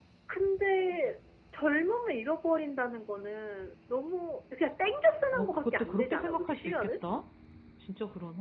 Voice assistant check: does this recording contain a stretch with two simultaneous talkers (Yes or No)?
Yes